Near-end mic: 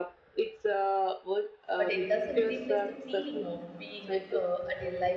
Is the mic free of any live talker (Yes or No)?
No